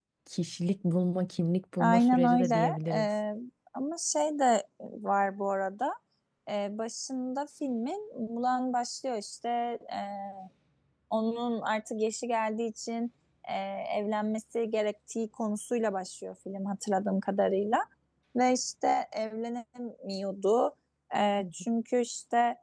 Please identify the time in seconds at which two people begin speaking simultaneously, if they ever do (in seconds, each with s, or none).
1.8 s